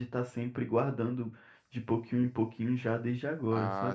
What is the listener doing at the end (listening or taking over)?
taking over